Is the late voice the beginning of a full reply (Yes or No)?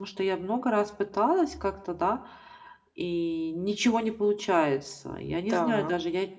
No